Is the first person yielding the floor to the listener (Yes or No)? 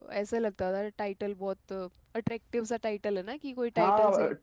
Yes